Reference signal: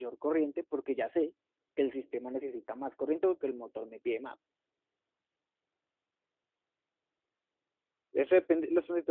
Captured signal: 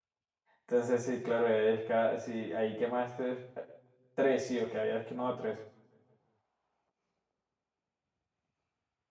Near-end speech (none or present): present